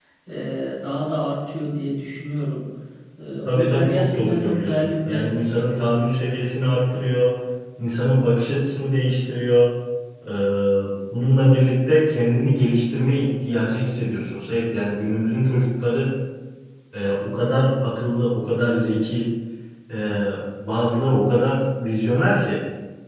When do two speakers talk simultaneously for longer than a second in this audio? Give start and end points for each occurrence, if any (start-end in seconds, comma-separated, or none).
3.5-6.0